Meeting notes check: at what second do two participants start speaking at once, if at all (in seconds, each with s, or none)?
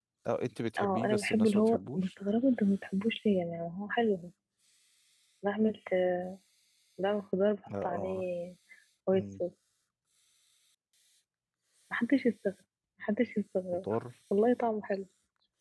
0.8 s